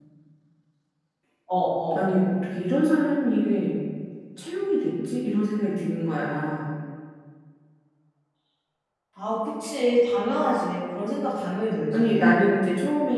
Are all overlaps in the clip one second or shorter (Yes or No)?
Yes